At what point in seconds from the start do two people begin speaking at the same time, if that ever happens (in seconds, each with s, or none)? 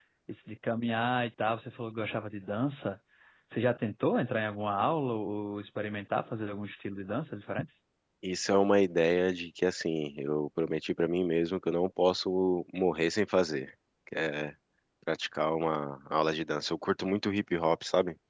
none